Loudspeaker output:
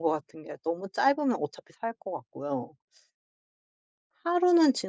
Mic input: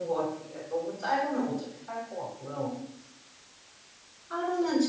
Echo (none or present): present